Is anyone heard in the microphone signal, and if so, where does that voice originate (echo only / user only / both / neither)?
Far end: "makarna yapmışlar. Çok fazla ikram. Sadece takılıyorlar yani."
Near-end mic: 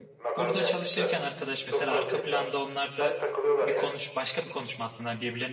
both